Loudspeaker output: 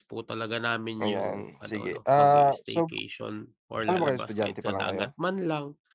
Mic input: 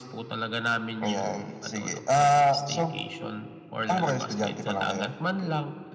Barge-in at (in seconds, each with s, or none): none